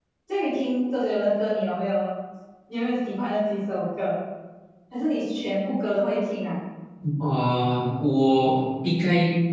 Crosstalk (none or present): none